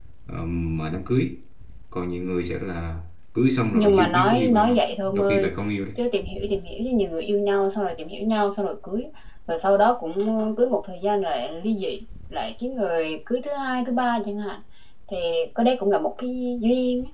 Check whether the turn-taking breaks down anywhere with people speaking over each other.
Yes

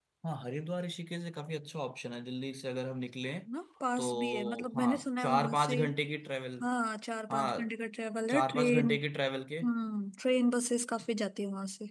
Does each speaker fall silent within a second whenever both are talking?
No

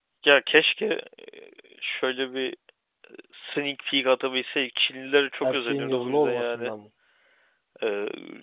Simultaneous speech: Yes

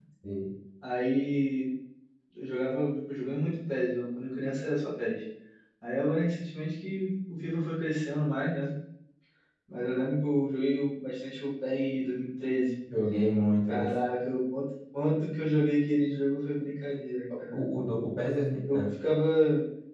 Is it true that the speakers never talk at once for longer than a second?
Yes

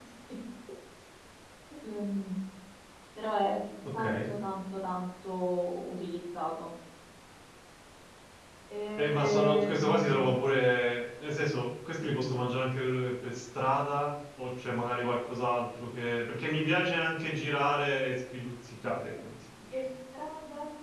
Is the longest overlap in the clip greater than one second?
Yes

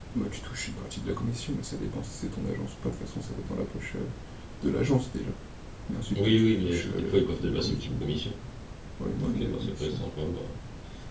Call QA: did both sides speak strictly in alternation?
No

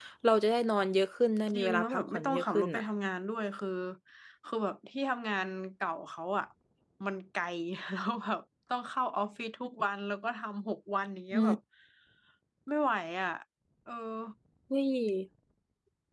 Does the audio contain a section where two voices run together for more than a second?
Yes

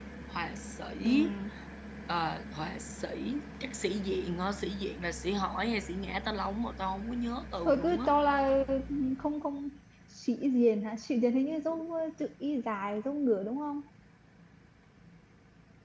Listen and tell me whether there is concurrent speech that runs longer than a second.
No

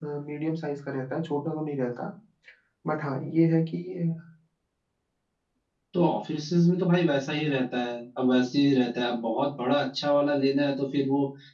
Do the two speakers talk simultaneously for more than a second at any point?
No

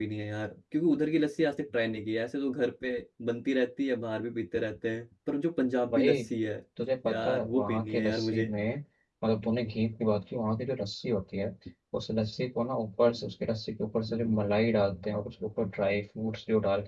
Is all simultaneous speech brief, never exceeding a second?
No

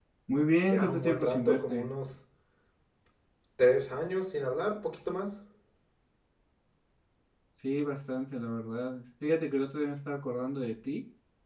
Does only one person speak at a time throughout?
No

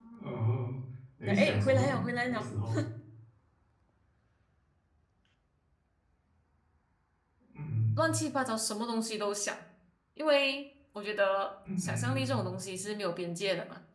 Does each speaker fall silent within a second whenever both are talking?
No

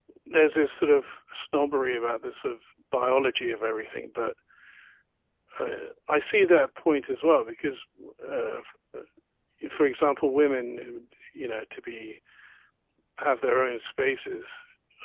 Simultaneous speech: No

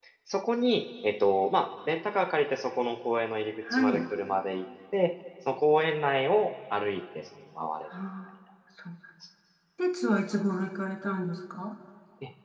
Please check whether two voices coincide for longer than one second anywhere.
No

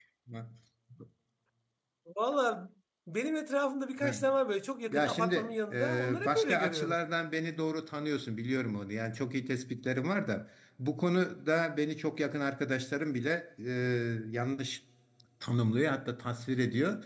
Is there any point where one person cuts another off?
Yes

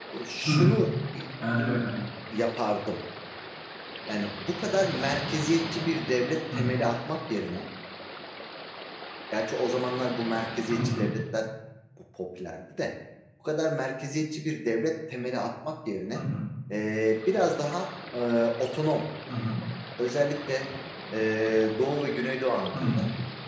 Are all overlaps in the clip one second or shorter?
Yes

